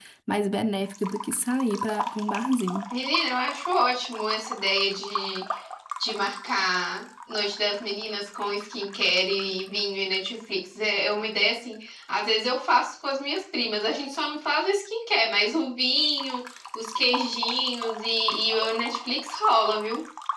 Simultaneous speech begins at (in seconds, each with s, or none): none